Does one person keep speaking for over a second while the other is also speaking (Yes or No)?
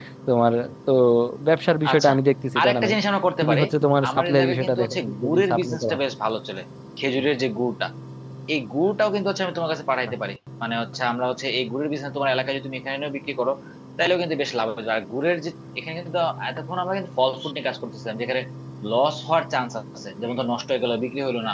Yes